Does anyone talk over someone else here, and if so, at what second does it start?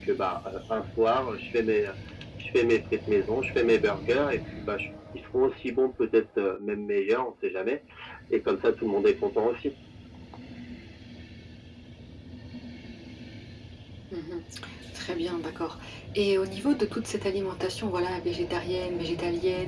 none

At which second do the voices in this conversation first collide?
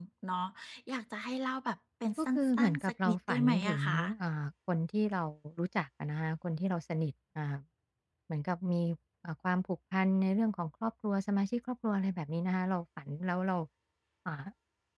2.2 s

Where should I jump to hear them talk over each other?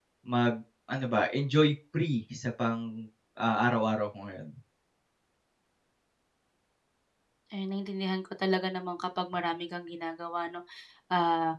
none

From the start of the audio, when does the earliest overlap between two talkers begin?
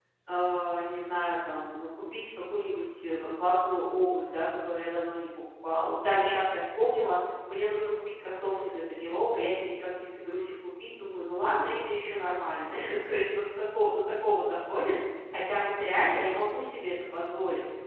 none

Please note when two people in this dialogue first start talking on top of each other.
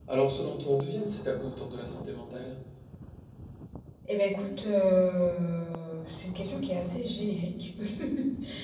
none

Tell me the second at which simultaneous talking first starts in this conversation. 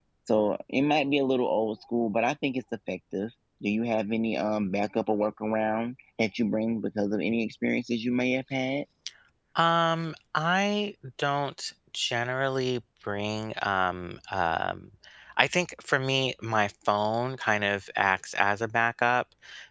none

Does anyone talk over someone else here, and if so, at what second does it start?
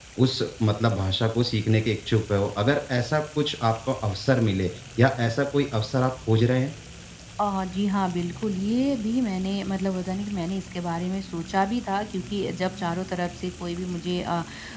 none

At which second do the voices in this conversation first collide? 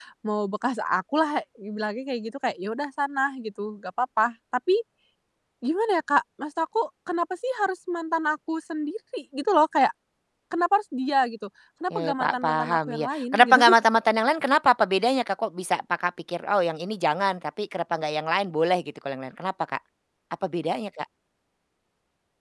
11.9 s

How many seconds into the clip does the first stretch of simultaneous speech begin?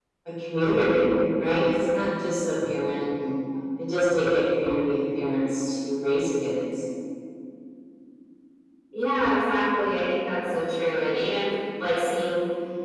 none

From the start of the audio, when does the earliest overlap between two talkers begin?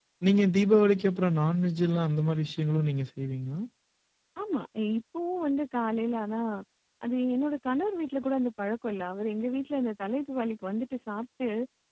none

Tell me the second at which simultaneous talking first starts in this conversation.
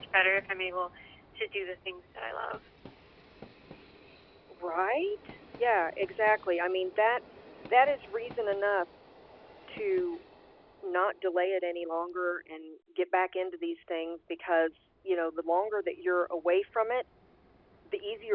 none

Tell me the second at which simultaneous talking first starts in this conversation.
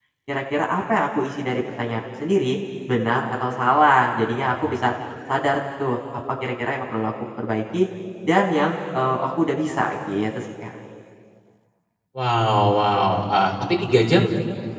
none

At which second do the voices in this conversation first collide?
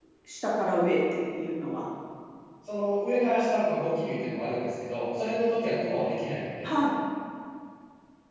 none

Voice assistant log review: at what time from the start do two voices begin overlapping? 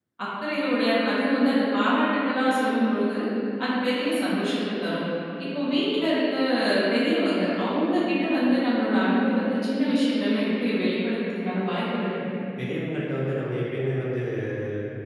none

